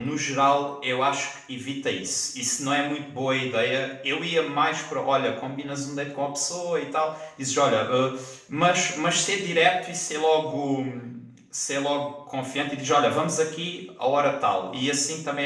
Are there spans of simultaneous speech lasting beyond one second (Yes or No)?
No